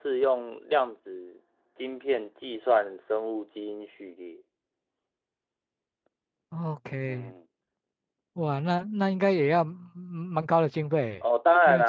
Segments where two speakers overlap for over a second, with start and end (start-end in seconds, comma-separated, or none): none